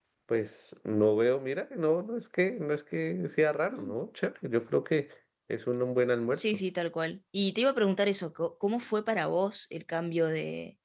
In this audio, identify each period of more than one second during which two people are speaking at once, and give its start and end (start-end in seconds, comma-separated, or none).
none